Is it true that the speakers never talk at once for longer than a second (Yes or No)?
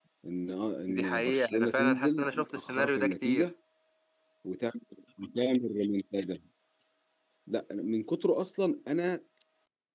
No